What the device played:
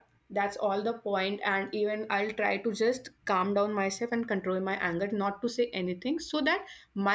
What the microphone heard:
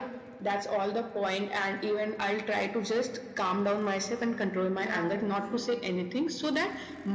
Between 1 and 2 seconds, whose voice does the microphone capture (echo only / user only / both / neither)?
echo only